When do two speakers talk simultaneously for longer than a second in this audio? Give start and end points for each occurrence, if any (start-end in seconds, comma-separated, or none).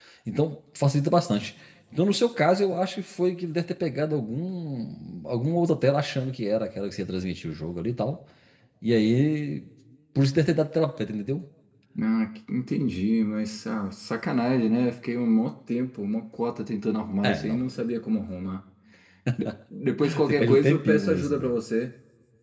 20.3-21.6